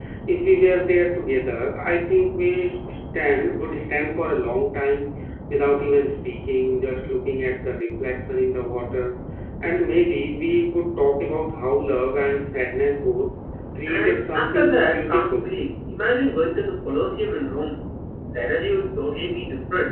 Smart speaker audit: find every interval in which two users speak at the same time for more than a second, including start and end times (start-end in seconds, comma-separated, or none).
13.9-15.5